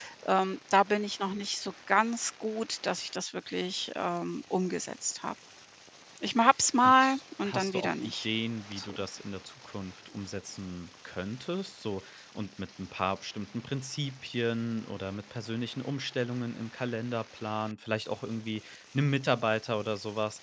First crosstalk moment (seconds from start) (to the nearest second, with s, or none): 7 s